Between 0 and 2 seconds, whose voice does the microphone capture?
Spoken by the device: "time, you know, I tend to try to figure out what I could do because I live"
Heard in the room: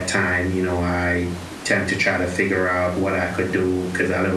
echo only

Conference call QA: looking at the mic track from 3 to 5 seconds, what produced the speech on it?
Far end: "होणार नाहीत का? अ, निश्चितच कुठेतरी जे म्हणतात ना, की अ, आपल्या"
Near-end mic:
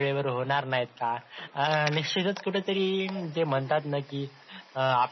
echo only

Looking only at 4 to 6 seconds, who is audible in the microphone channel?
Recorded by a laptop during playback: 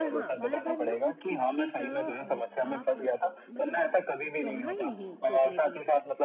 both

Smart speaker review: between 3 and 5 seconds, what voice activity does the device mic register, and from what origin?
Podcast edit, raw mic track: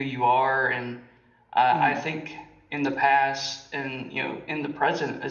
echo only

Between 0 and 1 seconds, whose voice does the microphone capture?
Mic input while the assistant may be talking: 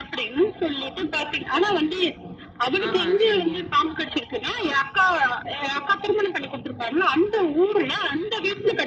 echo only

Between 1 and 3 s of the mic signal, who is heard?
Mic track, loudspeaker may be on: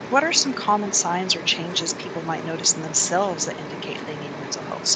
user only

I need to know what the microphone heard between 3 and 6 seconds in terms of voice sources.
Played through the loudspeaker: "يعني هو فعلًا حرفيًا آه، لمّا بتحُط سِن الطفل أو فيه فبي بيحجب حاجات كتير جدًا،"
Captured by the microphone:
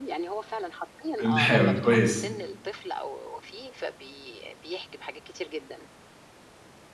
echo only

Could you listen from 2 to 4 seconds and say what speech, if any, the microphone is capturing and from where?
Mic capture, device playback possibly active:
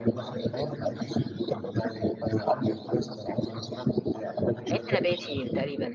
echo only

